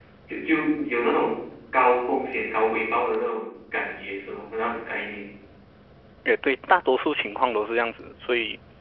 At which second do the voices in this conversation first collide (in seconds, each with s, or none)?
none